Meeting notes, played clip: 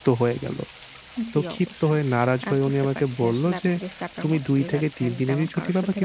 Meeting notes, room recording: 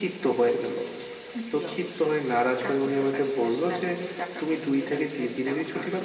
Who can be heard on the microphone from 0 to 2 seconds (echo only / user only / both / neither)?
echo only